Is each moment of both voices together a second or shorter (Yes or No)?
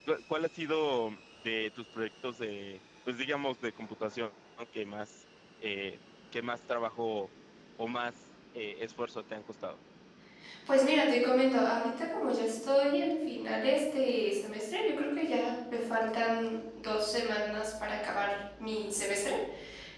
Yes